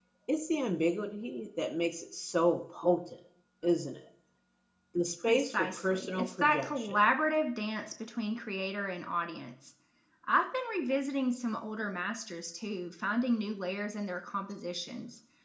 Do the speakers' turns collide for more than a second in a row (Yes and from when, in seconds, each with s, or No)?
Yes, from 5.3 s